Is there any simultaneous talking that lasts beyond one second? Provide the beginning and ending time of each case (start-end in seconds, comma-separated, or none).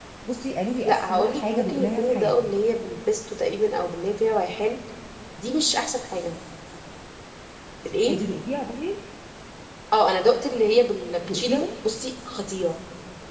0.8-2.5